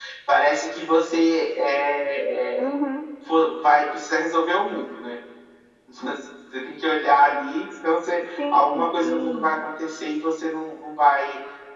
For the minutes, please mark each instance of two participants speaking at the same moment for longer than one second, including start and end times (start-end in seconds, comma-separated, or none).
8.2-9.5